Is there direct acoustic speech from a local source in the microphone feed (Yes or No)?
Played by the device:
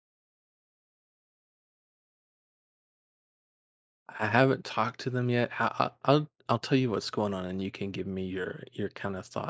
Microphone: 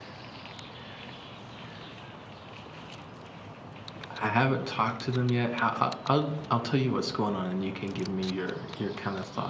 No